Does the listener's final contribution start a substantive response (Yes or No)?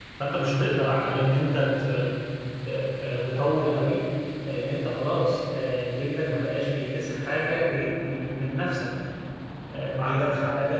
No